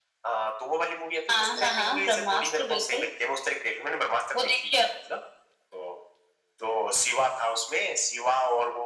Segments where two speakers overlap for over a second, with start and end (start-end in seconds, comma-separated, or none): 1.3-3.0